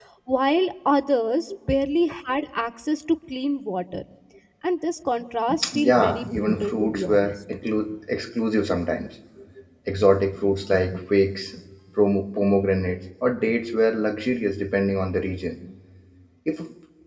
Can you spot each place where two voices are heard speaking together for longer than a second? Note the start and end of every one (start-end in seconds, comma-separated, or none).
5.8-7.3